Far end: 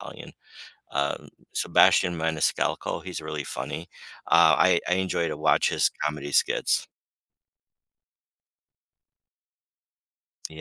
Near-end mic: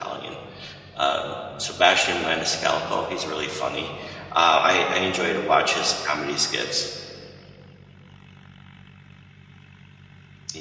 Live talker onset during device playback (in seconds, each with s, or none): none